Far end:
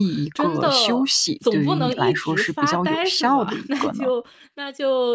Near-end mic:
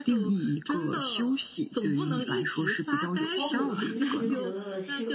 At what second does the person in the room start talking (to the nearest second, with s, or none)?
3 s